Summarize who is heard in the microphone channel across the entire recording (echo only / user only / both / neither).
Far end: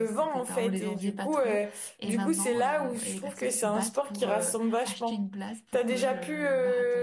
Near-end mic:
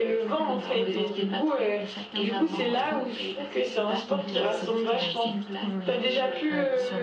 both